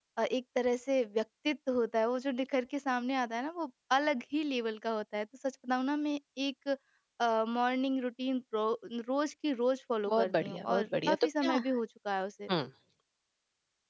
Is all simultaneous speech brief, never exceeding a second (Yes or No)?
No